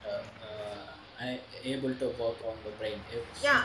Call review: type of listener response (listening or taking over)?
taking over